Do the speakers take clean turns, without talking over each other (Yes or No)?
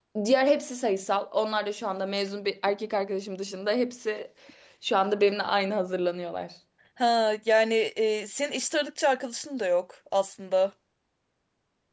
Yes